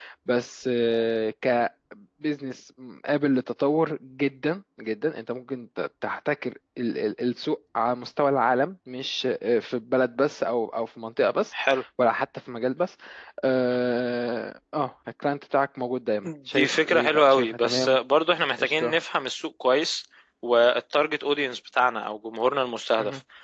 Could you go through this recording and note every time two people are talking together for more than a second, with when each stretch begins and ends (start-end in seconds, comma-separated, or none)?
16.2-18.0